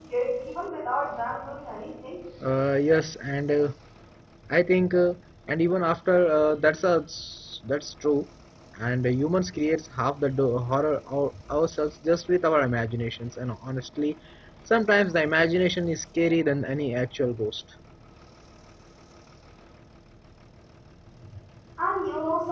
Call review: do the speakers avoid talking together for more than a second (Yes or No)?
Yes